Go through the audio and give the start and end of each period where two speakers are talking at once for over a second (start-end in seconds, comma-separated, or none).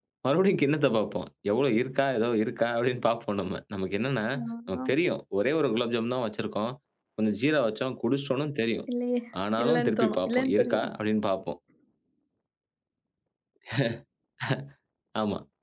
9.6-10.9